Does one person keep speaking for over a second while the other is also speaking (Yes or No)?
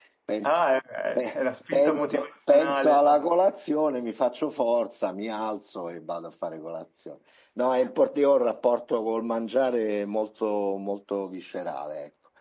Yes